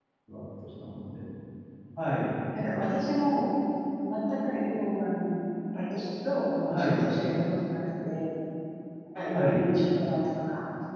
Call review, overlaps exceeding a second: none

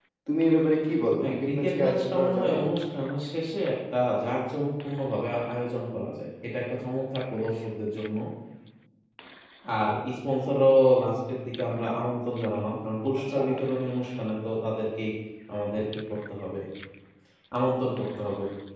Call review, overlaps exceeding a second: present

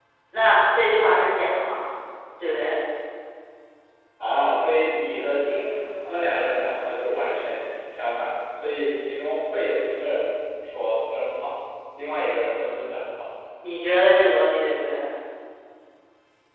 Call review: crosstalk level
none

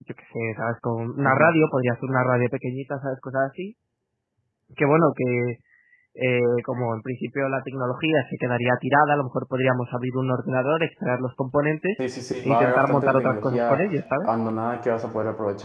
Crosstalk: present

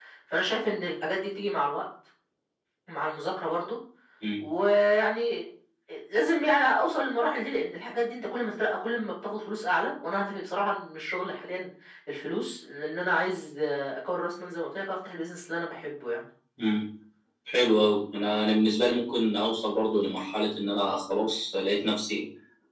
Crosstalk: none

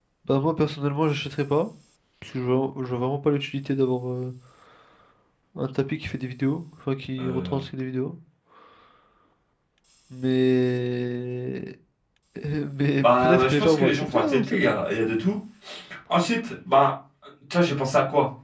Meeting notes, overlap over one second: present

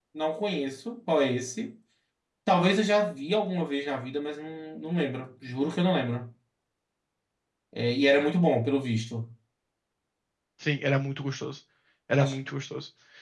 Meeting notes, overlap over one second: none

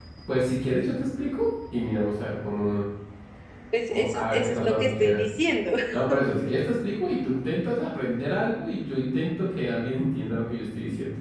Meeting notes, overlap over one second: present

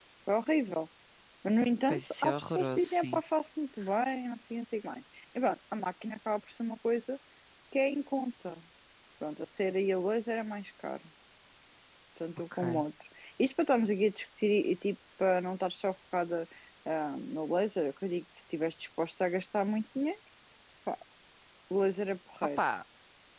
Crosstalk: present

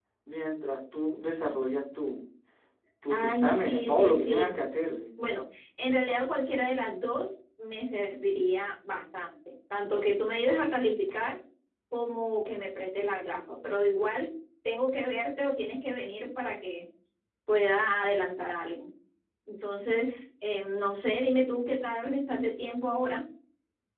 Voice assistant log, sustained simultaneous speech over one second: present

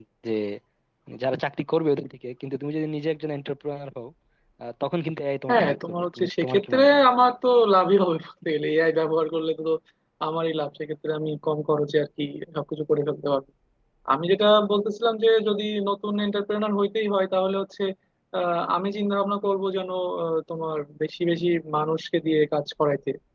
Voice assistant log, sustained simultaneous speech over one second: present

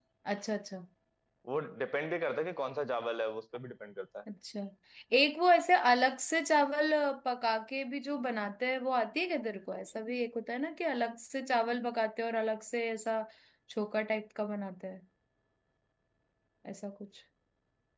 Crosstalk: none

